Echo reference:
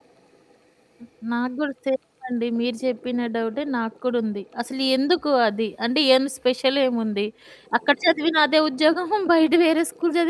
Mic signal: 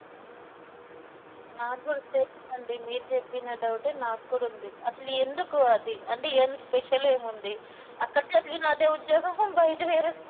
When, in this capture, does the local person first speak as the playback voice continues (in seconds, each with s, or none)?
none